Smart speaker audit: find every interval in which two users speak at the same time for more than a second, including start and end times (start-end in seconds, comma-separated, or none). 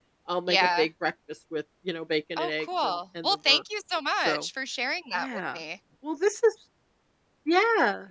2.4-3.6